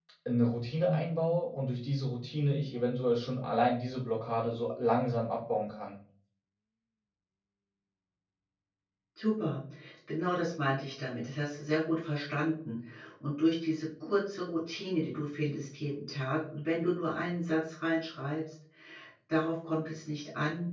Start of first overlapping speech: none

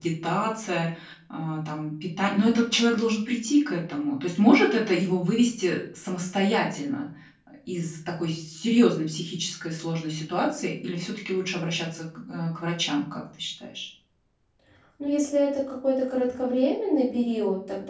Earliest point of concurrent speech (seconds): none

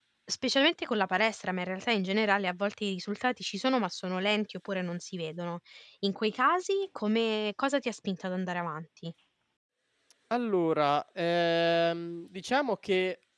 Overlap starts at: none

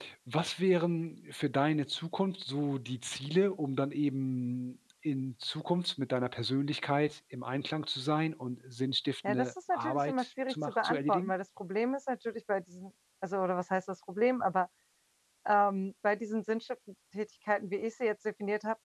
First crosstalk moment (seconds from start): 9 s

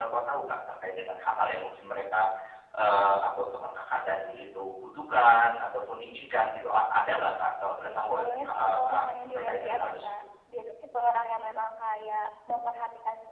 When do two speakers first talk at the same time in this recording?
8 s

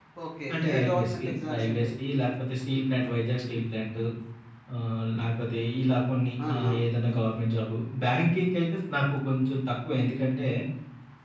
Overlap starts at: 1 s

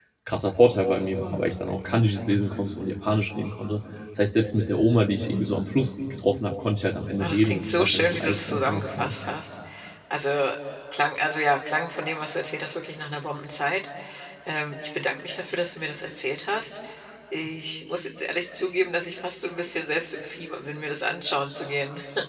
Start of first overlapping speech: 7 s

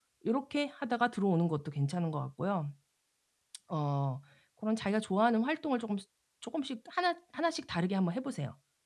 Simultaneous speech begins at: none

